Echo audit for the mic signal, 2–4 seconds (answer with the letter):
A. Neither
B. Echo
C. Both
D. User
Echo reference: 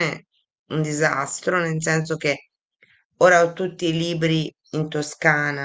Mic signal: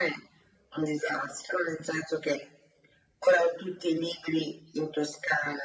B